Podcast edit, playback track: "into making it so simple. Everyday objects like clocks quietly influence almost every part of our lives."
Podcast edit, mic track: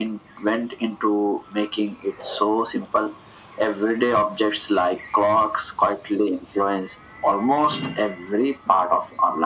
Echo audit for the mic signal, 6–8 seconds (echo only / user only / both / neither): echo only